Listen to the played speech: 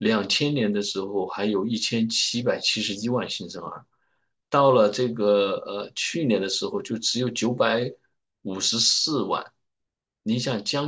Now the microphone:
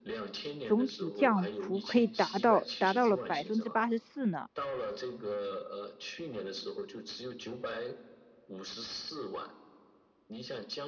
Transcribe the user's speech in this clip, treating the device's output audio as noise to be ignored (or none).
总体降幅可以达到达到了百分之八十四呢。